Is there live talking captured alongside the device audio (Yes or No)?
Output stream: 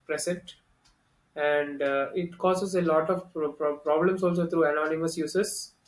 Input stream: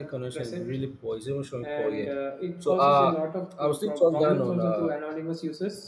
Yes